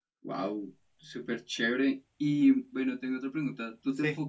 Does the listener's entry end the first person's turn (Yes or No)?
No